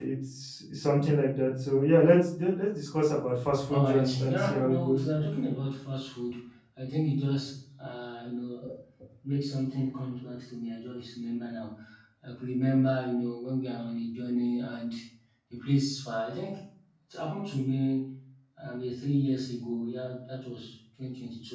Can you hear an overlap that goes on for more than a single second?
Yes, from 3.7 s

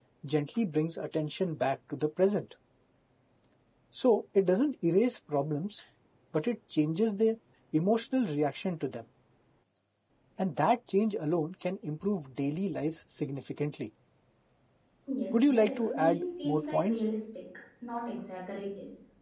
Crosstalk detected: Yes, from 15.3 s

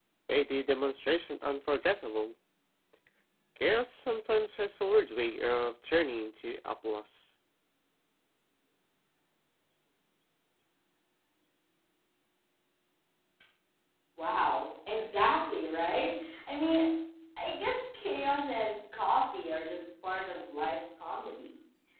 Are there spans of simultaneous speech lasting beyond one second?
No

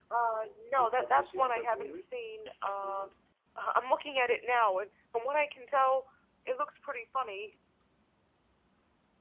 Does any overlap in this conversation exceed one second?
Yes, from 0.8 s

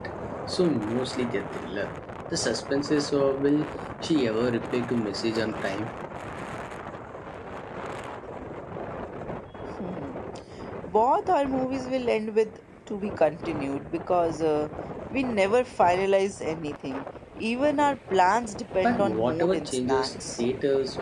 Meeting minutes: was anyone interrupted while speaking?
Yes, from 18.8 s

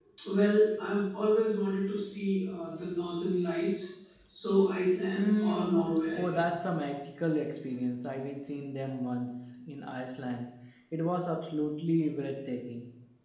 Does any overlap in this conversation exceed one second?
Yes, from 5.2 s

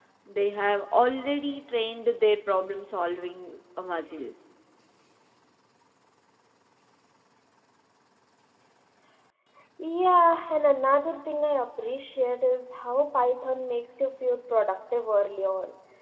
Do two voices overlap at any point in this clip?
No

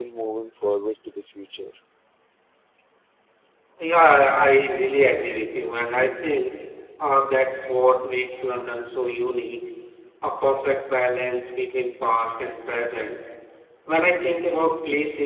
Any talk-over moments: No

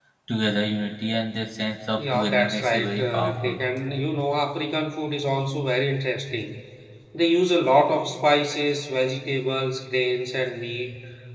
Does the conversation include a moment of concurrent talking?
Yes, from 2.0 s

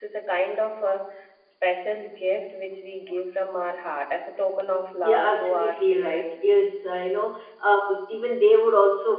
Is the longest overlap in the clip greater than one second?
Yes, from 5.0 s

